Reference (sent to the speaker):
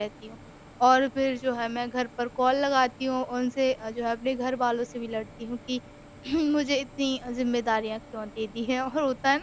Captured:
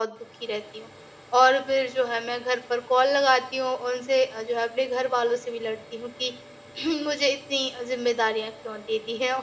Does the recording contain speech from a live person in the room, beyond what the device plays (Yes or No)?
No